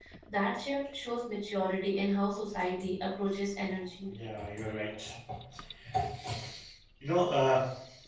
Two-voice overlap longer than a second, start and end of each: none

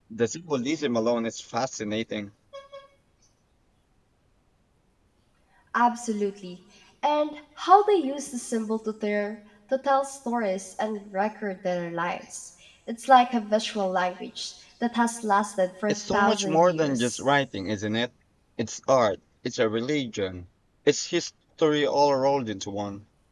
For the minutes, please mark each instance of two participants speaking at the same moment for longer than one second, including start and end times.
15.9-17.2

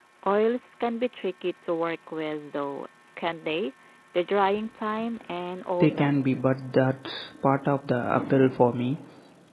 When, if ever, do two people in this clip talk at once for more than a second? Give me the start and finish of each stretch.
none

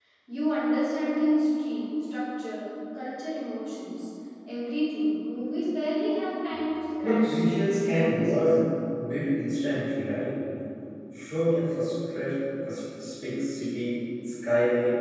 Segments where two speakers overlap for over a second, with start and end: 7.0-8.6

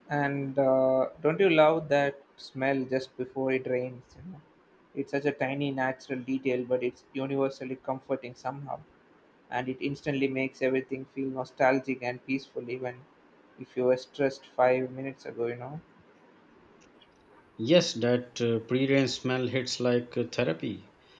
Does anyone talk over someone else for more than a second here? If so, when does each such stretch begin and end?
none

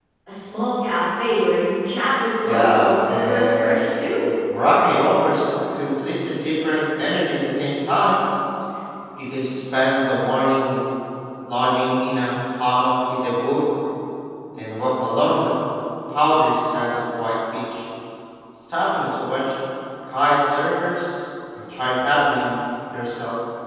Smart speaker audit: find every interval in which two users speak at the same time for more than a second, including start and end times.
2.4-3.9

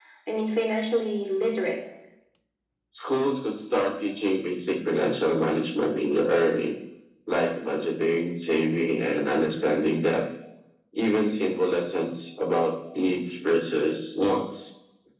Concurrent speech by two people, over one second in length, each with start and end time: none

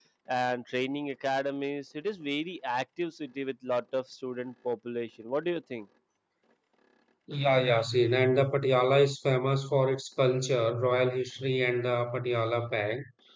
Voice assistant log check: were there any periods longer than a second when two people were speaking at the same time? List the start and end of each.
none

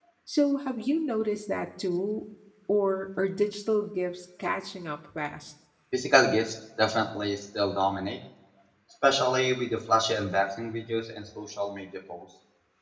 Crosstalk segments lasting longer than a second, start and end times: none

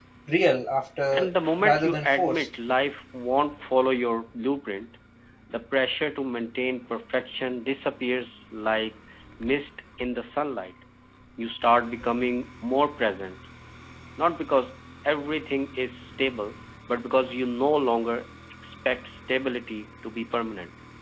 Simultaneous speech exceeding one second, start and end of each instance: 1.1-2.5

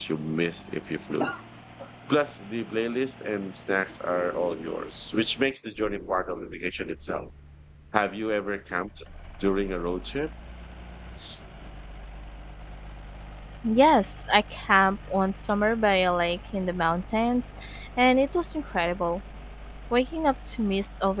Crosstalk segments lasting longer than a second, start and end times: none

